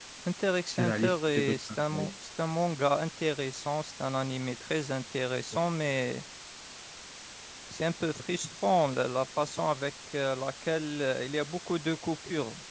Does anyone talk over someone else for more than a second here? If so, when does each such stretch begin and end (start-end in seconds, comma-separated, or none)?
0.7-2.1